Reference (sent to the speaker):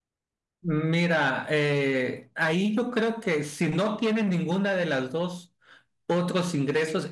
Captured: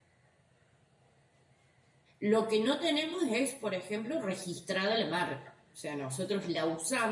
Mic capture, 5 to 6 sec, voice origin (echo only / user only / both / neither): user only